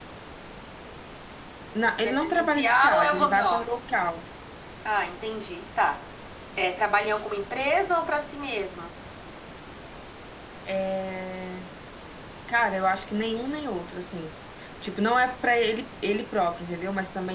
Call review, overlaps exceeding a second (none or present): present